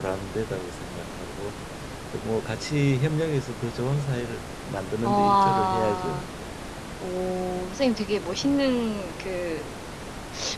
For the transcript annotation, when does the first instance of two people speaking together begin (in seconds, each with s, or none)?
5.0 s